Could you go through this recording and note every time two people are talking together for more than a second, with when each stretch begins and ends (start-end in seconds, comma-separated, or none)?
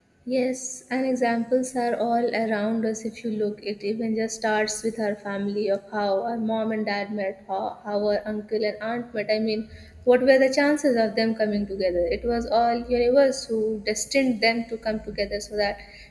none